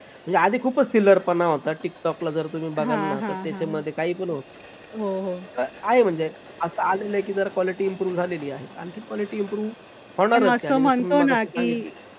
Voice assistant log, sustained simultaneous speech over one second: present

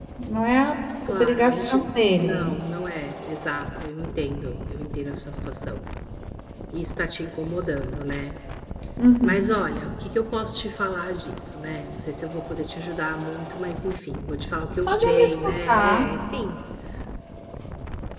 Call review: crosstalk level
present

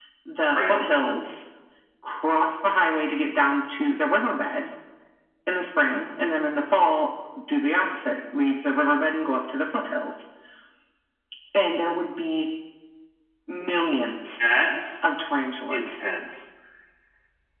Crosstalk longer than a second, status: none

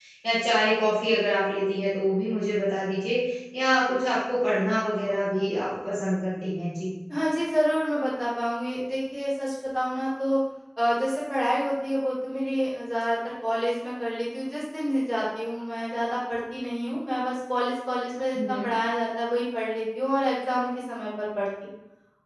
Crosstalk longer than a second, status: none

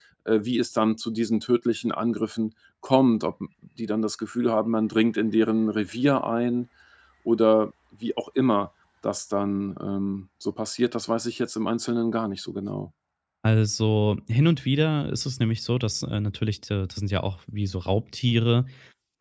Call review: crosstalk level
none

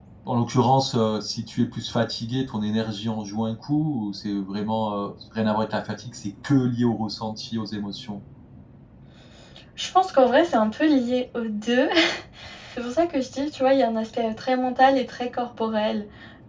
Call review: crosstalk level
none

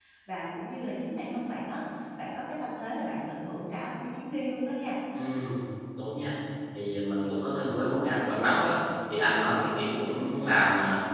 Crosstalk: none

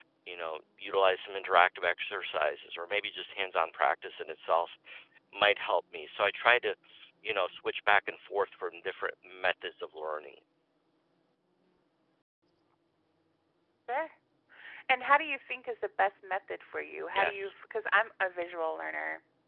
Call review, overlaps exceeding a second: none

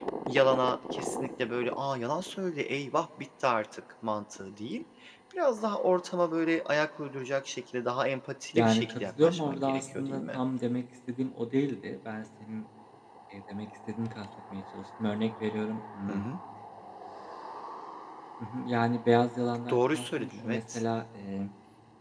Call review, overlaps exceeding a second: present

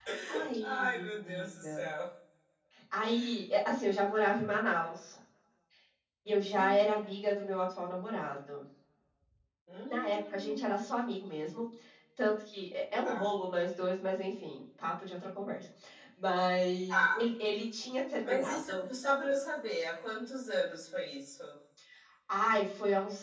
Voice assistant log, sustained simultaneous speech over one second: present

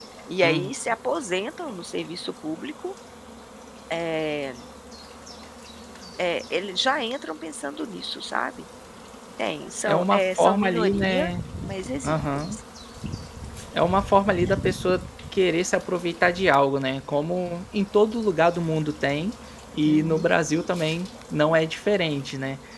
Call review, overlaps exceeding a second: present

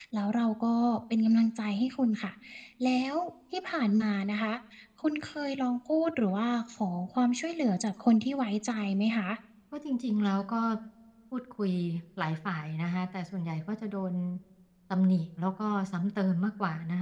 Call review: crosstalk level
none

